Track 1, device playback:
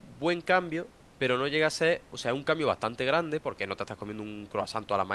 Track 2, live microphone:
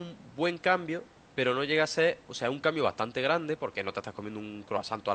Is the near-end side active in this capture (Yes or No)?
No